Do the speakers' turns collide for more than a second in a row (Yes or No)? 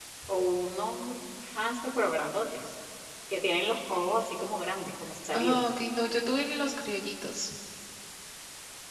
No